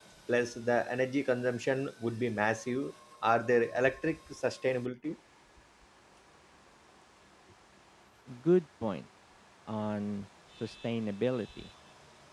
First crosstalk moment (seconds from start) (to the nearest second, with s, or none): none